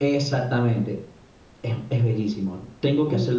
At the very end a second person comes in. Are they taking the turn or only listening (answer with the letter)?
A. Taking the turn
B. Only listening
B